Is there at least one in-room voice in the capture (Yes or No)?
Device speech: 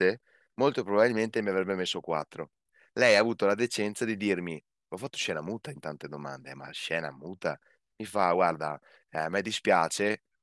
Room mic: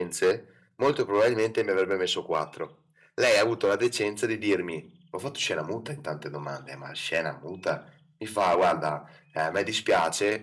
No